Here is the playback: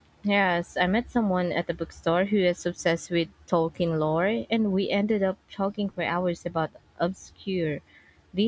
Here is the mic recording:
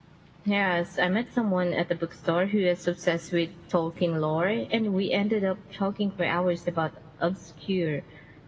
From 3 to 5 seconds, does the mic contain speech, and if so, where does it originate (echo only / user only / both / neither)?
echo only